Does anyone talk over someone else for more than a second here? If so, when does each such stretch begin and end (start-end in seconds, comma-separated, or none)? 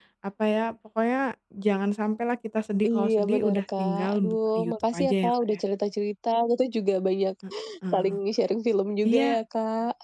2.8-5.6